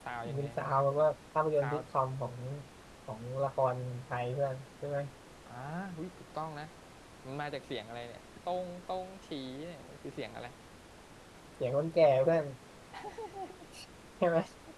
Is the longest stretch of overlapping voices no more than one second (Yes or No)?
Yes